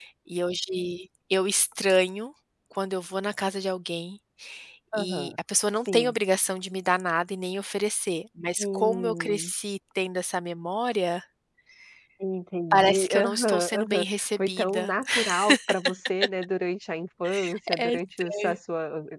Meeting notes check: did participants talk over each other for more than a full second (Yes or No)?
Yes